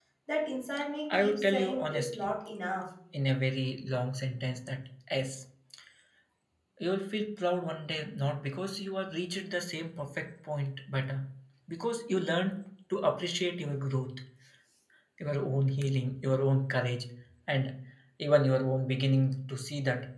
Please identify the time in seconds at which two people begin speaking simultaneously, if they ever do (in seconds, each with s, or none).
1.1 s